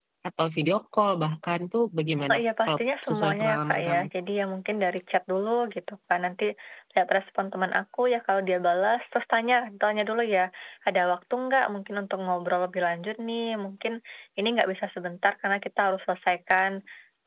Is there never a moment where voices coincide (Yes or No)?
No